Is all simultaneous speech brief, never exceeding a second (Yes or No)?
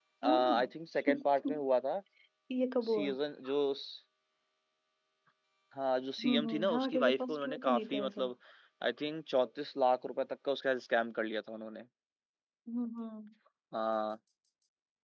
No